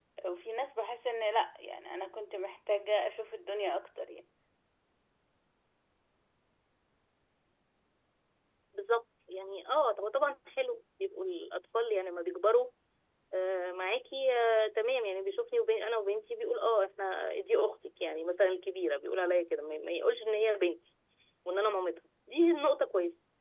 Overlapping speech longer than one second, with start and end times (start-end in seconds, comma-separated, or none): none